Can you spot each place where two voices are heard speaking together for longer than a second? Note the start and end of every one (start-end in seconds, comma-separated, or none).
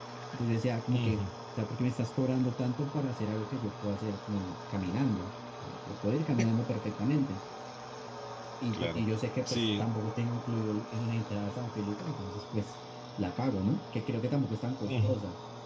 none